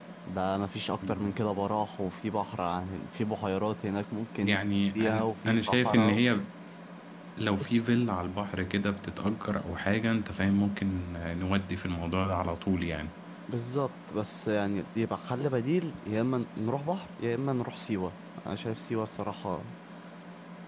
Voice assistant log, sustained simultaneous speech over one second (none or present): present